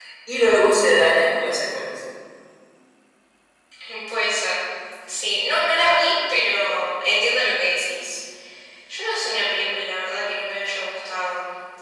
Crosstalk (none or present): none